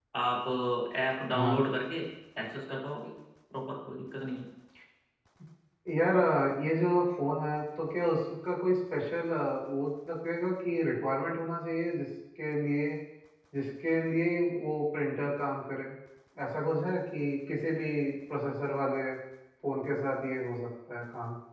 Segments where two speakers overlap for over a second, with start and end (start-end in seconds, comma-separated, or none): none